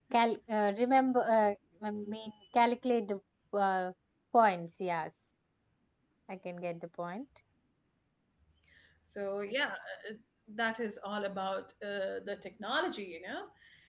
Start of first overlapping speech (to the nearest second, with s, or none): none